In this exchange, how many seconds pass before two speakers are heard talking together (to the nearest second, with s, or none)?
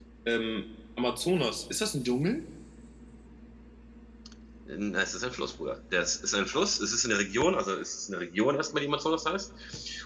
none